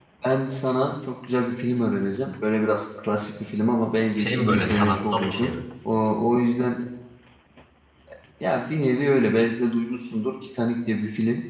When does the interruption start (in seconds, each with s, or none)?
4.2 s